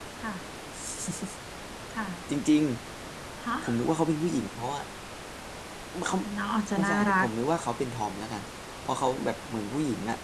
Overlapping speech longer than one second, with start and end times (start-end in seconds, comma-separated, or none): none